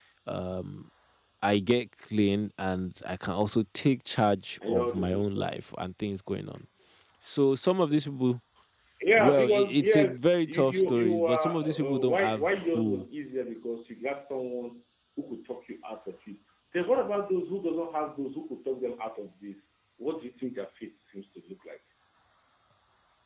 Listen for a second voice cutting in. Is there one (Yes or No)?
Yes